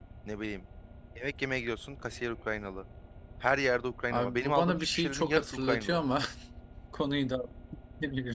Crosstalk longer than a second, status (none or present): present